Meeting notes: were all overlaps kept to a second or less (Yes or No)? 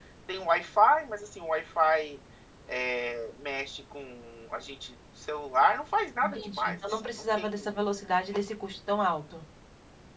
No